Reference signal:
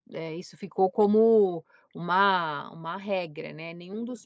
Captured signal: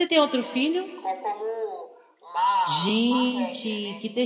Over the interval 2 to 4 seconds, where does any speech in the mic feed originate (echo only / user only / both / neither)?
both